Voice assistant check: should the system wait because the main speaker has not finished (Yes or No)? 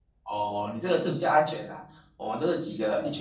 Yes